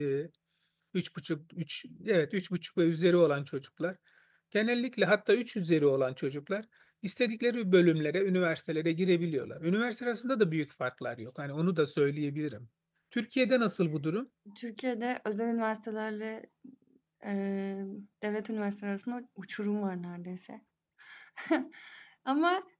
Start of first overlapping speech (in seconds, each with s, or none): none